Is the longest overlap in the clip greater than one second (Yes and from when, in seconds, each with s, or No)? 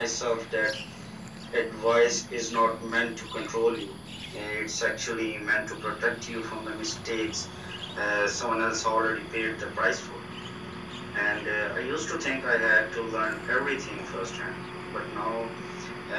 No